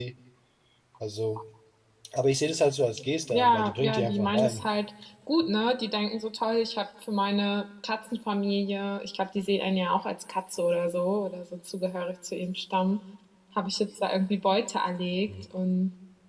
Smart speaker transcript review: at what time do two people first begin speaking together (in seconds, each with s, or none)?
3.3 s